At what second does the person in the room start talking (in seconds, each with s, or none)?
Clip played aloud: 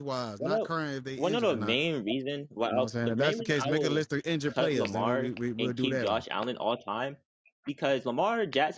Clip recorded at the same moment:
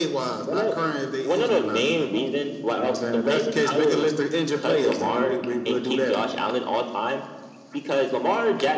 none